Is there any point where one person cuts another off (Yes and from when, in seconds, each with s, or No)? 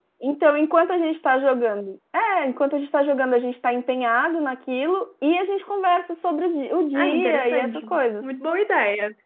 Yes, from 6.9 s